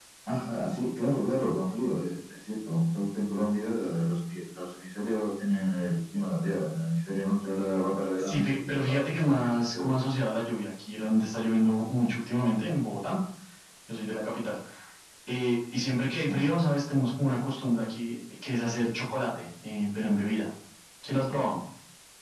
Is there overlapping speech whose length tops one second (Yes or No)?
Yes